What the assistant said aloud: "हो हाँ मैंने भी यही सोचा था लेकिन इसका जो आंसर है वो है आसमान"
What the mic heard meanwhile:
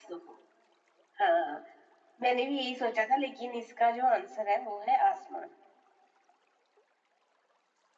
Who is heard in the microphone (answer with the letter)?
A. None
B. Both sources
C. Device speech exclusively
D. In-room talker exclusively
C